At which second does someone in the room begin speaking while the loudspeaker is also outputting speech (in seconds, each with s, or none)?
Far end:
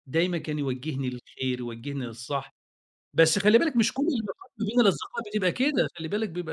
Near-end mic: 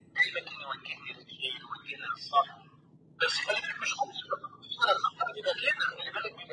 none